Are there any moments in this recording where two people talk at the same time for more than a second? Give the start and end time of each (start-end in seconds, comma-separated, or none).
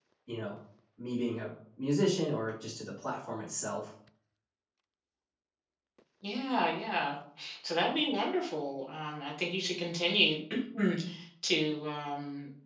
none